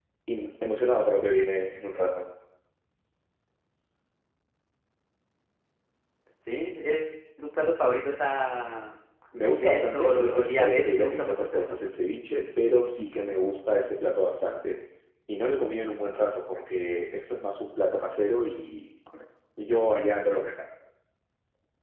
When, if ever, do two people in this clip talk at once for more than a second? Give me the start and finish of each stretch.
9.4-11.8

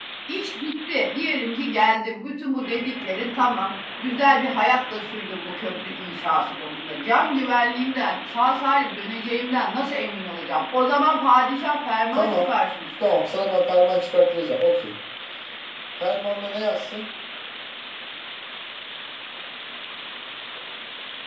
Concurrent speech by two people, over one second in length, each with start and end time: none

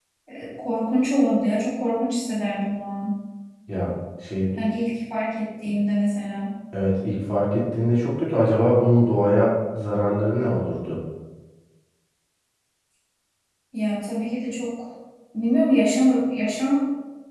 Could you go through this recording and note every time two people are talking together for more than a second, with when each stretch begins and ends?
none

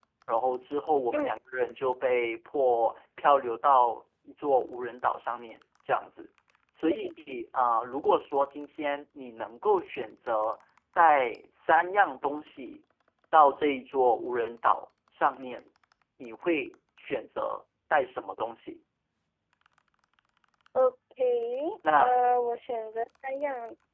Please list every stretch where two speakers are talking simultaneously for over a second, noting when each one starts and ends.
none

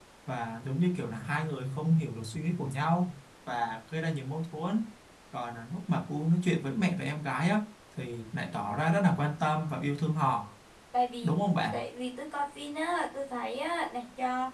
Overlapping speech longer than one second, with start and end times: none

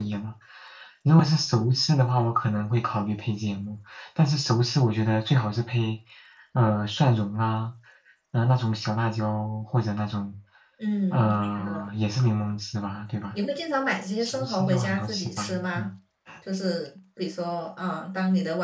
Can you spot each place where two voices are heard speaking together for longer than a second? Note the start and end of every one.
14.2-15.9

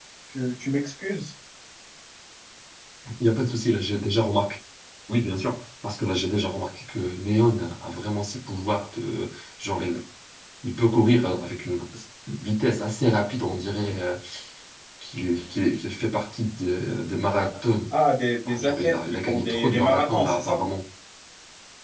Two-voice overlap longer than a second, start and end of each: 18.4-20.6

